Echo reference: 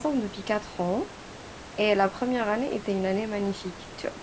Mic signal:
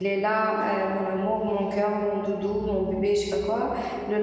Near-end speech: present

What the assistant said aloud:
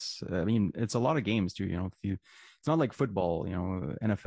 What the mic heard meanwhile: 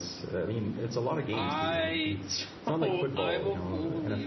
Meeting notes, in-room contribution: present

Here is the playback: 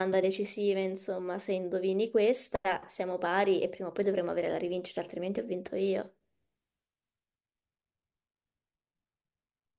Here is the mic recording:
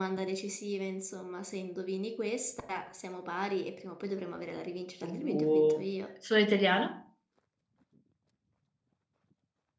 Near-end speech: present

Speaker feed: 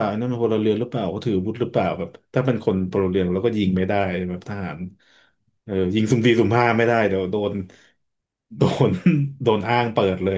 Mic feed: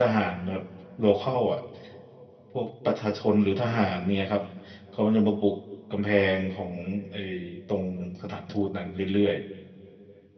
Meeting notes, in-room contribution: present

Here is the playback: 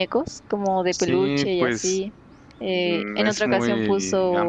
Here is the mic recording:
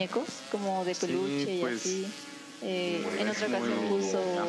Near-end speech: present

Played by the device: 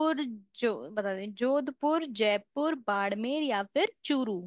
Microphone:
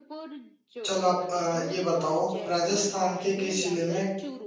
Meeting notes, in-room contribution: present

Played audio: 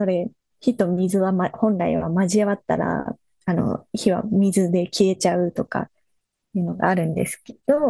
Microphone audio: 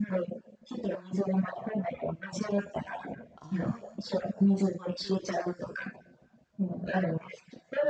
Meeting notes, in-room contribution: present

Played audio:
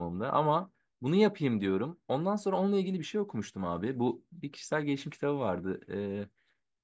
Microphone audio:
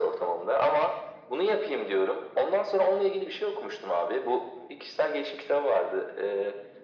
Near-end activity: none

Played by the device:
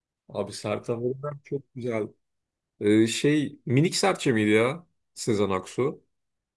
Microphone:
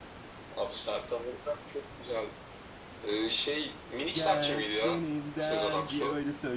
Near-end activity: present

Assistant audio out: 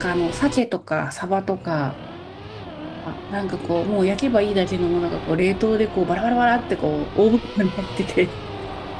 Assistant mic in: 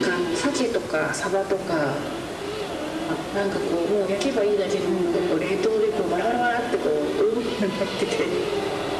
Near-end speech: present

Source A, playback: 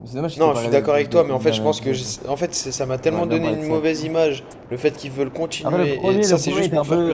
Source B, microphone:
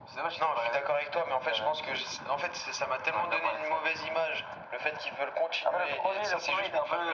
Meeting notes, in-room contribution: none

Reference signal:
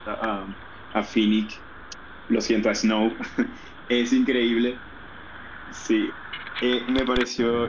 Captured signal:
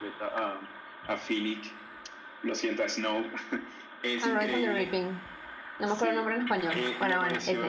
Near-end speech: present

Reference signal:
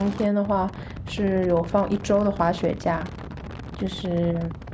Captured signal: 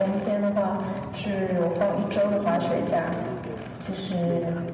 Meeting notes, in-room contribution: present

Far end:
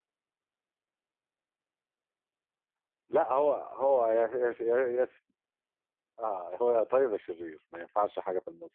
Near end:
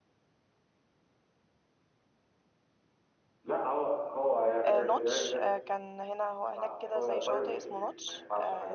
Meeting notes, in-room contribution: present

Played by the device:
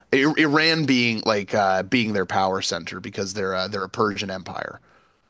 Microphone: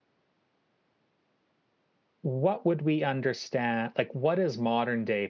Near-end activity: present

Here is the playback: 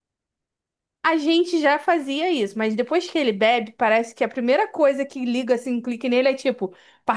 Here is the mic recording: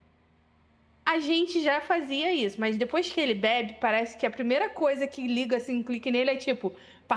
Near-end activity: none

